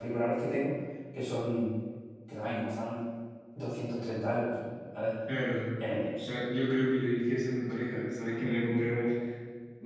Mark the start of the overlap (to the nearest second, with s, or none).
none